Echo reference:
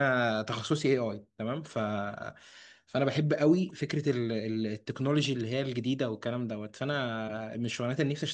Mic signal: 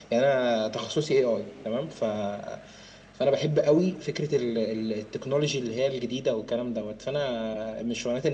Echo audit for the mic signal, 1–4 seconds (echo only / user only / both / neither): echo only